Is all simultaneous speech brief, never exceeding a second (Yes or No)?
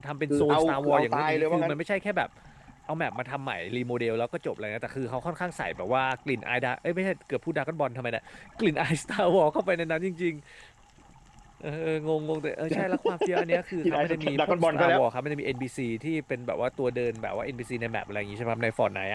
No